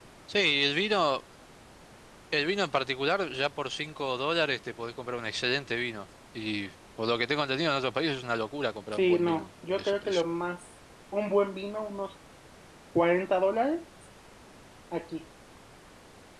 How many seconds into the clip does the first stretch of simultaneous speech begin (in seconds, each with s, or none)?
8.9 s